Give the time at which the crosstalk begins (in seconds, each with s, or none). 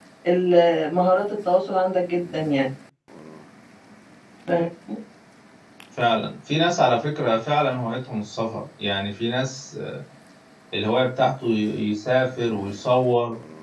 none